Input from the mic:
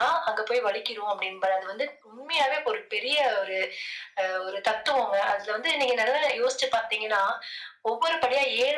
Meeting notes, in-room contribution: none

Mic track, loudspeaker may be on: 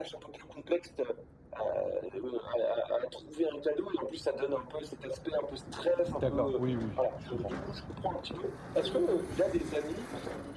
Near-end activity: present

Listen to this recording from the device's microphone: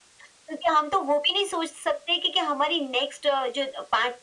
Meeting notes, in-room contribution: none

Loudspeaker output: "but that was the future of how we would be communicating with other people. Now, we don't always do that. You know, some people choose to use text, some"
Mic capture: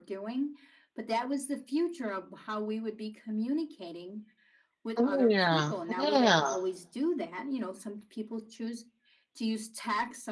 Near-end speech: present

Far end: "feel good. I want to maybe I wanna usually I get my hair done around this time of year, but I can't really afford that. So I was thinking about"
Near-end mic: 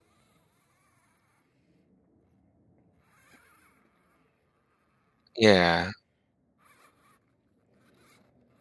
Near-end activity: present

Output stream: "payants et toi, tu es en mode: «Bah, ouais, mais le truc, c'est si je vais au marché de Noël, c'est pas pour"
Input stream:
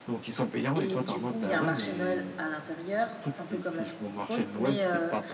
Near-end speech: present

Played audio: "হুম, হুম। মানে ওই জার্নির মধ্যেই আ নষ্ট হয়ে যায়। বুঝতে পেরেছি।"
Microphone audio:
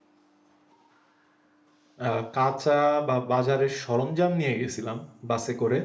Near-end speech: present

